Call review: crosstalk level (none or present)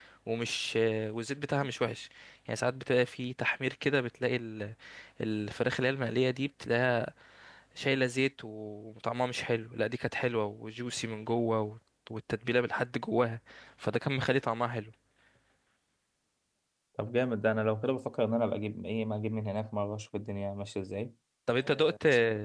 none